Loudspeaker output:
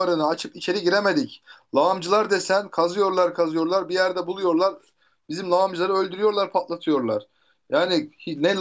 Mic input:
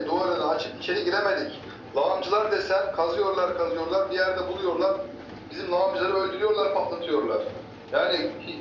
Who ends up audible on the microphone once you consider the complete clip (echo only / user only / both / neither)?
echo only